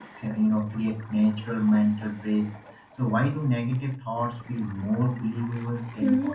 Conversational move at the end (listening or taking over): taking over